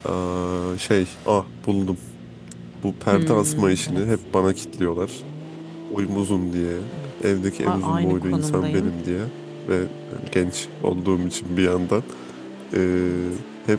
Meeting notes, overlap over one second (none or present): present